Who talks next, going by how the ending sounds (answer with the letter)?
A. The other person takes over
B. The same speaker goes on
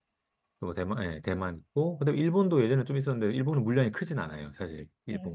A